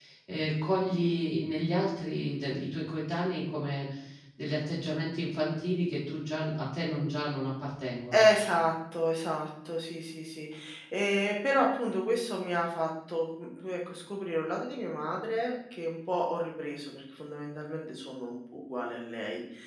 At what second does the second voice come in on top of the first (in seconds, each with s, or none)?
none